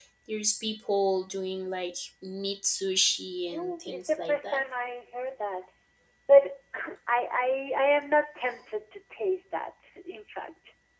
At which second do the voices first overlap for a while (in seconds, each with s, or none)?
3.4 s